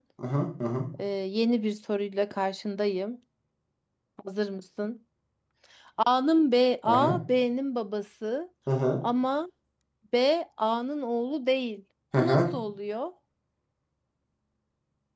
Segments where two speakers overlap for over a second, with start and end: none

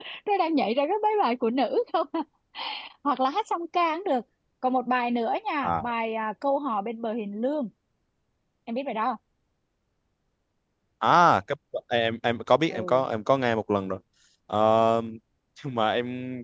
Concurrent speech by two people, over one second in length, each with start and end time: none

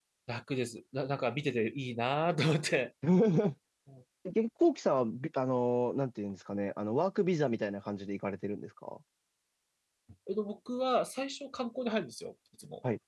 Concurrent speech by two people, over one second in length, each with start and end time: none

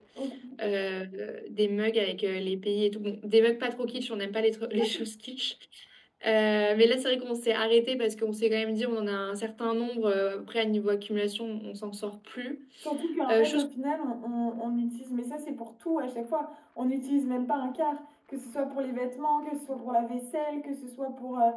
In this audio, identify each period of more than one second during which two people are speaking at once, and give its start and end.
none

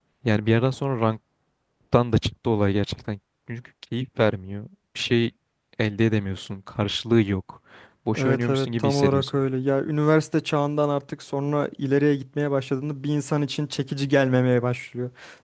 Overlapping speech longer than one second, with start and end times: 8.2-9.4

